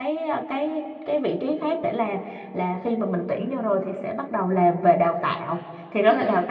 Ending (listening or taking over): listening